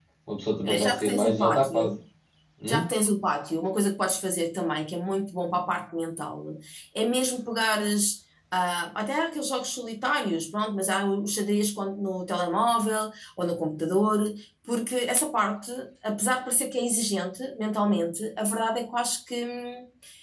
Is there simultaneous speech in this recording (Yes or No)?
Yes